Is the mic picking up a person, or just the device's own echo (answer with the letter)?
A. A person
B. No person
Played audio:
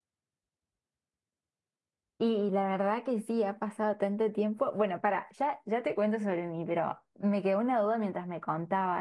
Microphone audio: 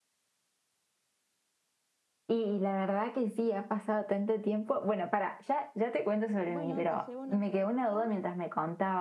A